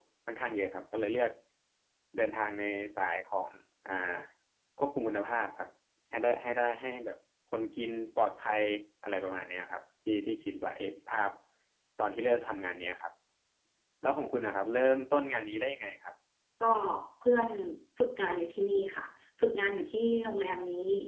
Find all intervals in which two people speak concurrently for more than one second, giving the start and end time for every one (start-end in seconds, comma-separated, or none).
none